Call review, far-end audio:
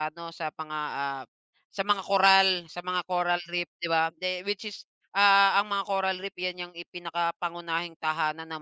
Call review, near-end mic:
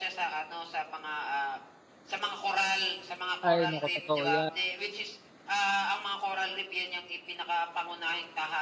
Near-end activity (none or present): present